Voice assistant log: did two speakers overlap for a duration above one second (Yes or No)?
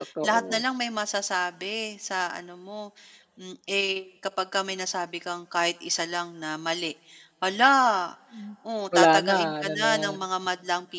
Yes